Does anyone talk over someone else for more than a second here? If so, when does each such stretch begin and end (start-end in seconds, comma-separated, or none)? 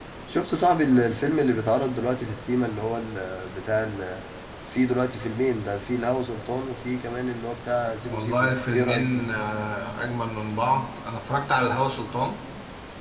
8.1-9.3